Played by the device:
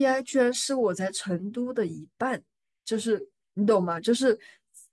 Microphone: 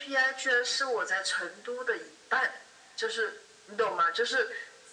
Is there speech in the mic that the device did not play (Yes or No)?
No